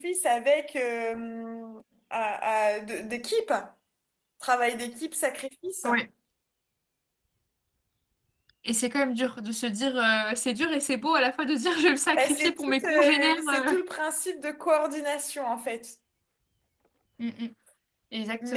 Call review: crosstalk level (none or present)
present